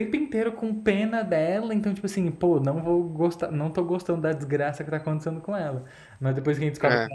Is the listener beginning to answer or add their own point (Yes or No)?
No